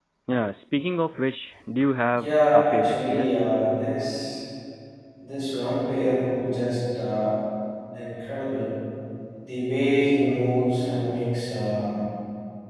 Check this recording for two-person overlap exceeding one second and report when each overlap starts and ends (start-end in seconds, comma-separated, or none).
2.1-3.3